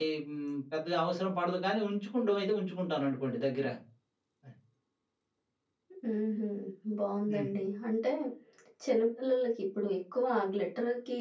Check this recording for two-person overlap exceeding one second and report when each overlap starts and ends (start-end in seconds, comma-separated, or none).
none